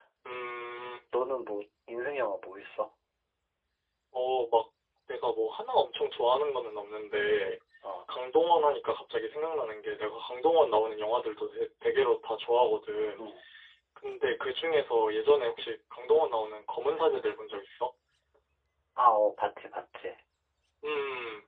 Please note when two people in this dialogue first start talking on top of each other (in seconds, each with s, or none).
none